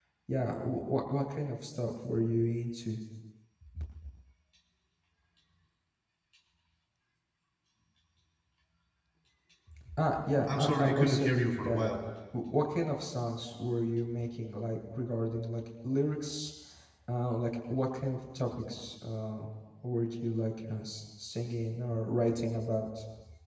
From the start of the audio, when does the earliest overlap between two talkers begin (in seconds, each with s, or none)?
10.6 s